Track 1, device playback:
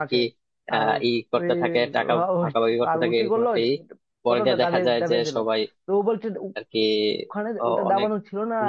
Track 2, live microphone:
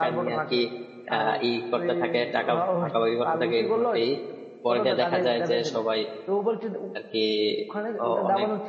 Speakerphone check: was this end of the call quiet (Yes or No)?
Yes